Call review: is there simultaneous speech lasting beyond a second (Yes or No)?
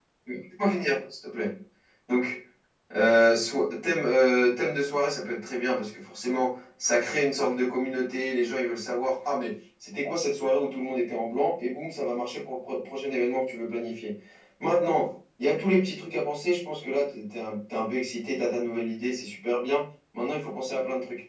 No